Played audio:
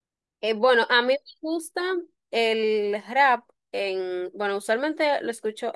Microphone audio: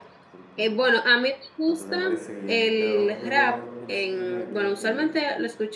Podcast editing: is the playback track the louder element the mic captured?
Yes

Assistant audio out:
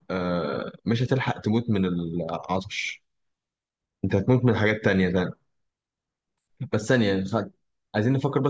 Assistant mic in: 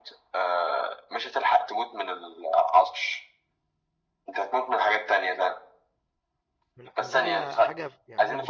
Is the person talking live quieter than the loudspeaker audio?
Yes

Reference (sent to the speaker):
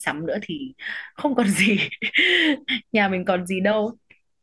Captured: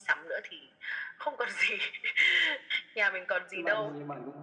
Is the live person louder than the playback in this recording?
No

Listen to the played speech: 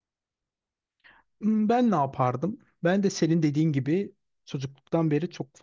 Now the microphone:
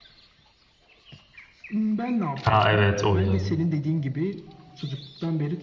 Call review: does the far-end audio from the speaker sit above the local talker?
No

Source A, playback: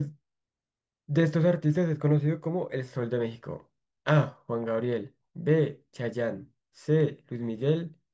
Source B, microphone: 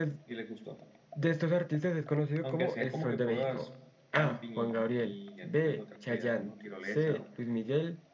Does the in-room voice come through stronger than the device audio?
No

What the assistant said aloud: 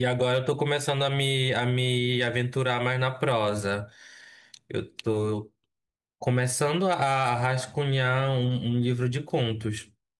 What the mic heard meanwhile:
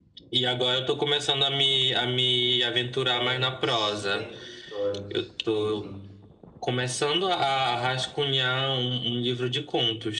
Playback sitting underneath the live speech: No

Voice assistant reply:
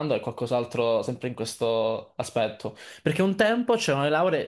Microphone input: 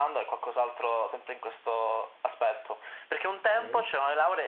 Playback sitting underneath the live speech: No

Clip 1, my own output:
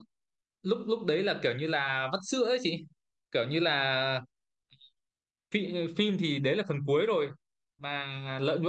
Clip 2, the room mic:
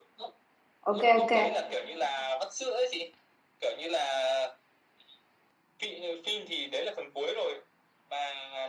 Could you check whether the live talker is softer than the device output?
No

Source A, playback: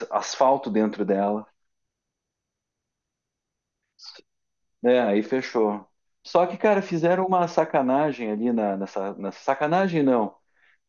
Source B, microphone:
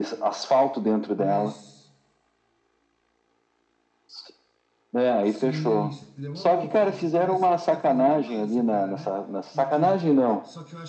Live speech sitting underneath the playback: Yes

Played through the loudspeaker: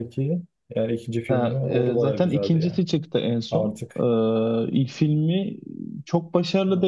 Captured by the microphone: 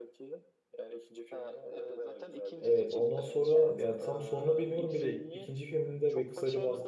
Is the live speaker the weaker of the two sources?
No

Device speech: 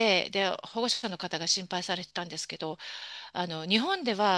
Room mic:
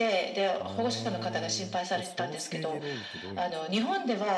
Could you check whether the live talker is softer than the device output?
Yes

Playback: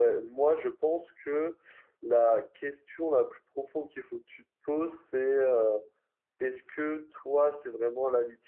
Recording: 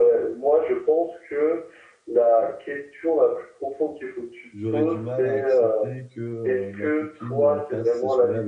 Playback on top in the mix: Yes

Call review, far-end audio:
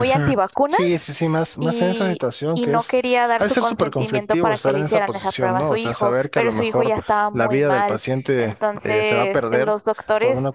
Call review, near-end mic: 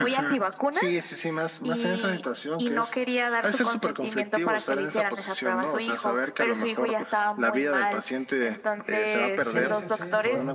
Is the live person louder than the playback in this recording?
No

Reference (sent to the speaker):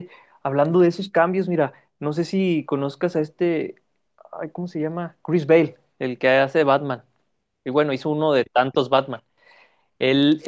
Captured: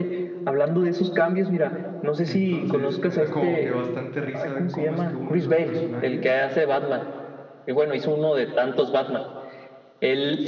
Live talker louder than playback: No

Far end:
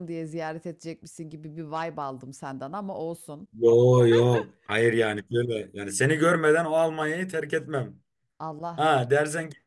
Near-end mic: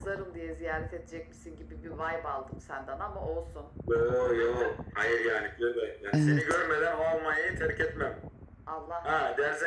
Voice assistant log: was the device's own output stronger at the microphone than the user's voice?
No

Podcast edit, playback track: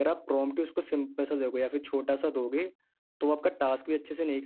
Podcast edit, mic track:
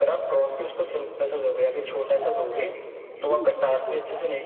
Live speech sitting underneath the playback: Yes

